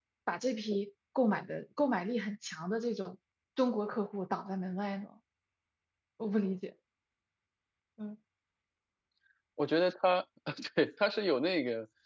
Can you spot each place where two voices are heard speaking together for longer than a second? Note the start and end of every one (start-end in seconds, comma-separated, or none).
none